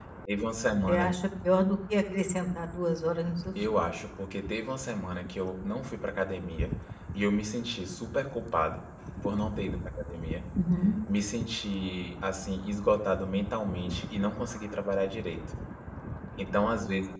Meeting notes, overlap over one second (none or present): none